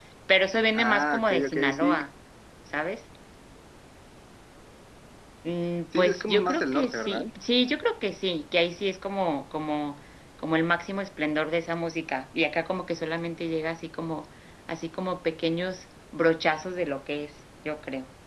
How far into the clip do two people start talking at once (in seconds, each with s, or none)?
0.7 s